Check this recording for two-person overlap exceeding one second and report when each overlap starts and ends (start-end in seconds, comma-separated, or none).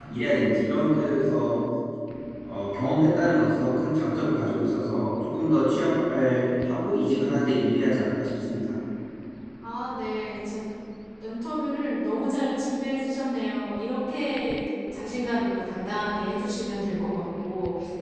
none